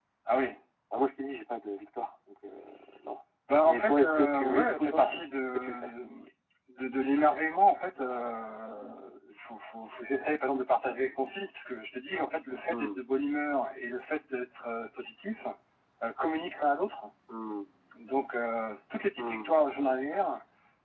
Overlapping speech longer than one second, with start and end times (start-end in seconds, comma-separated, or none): 3.6-5.0